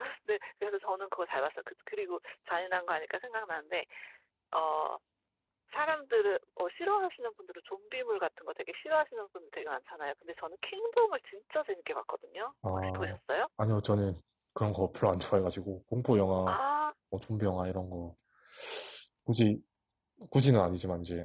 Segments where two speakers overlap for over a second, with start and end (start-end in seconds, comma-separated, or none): none